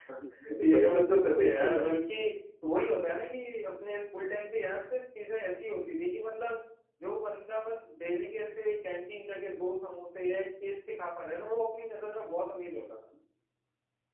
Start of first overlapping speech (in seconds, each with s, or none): 0.6 s